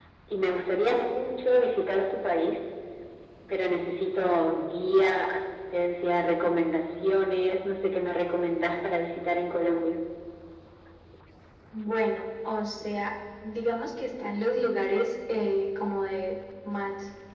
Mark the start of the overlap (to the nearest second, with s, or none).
none